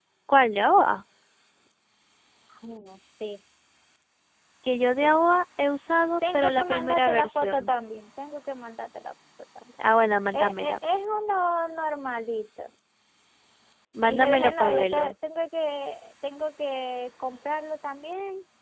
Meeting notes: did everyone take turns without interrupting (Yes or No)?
No